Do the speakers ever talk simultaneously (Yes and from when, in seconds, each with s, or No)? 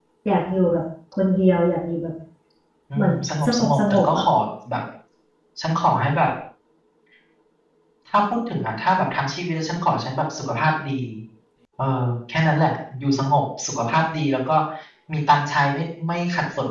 Yes, from 3.0 s